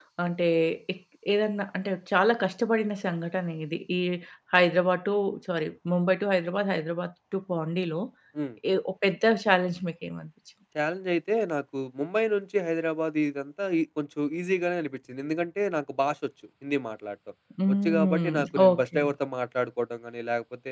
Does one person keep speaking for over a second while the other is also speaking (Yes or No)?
Yes